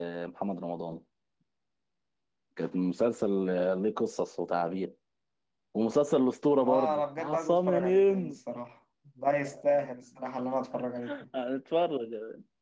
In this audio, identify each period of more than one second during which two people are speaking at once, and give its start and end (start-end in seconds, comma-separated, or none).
6.5-8.4